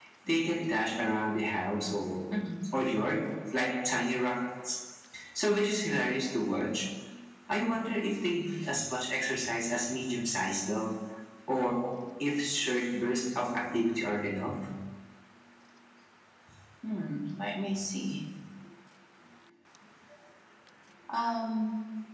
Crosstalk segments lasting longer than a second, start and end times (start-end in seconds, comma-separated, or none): none